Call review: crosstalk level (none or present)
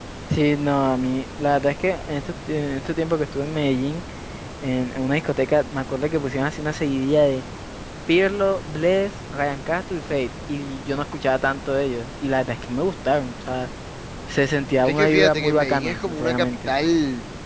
present